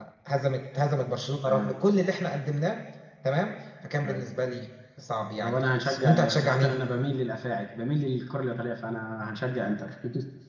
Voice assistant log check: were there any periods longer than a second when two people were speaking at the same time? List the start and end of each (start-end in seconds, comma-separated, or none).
5.4-6.8